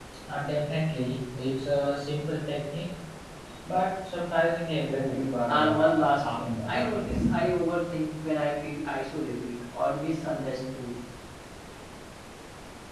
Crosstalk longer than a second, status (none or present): present